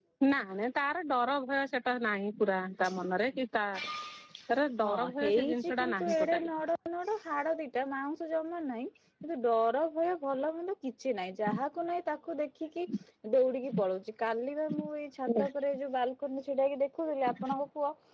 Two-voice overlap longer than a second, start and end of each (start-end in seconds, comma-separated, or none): 4.8-6.5